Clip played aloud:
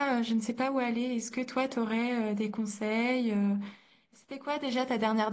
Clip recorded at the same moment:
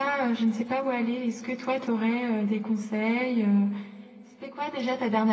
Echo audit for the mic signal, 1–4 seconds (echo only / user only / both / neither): echo only